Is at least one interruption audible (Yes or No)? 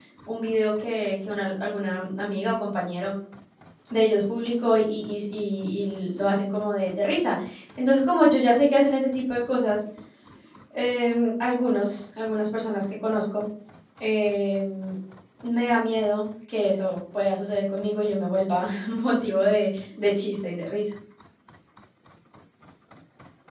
No